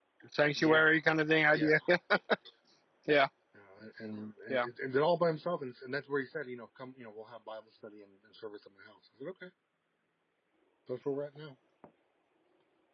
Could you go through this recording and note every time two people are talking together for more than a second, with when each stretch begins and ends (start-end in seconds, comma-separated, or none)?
none